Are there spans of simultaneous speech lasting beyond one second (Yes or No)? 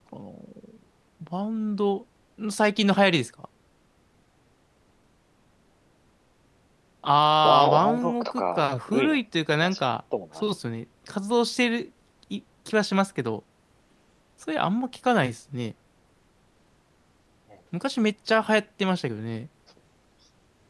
Yes